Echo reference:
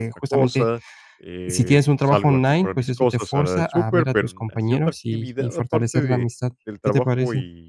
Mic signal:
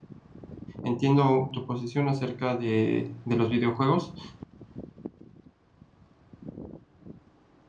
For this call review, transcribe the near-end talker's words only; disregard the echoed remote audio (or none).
Entiendo tu posición acerca de de los videojuegos,